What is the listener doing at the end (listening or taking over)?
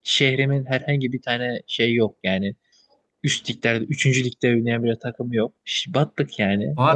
taking over